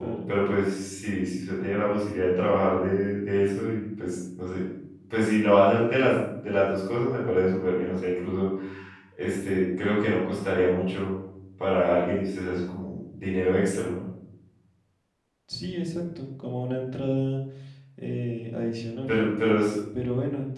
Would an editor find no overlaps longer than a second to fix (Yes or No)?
Yes